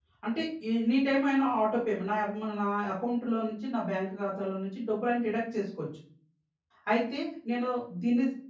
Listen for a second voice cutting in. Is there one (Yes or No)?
No